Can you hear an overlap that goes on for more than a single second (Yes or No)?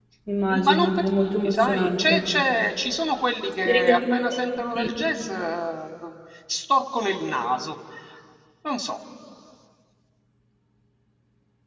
Yes